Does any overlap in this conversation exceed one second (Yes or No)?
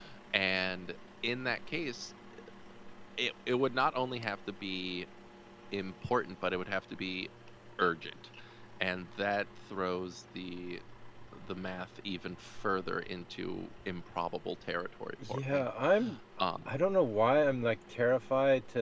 No